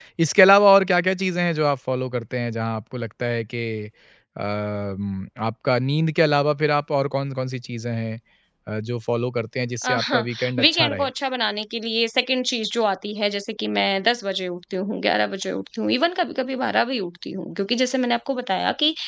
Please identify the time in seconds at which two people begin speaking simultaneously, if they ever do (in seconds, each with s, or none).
9.8 s